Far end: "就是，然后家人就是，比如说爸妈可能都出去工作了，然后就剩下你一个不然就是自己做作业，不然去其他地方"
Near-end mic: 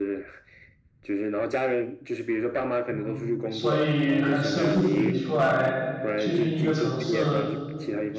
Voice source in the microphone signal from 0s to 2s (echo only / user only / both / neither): echo only